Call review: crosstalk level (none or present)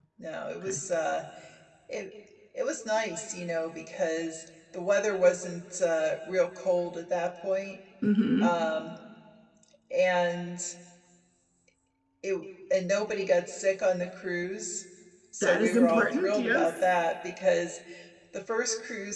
present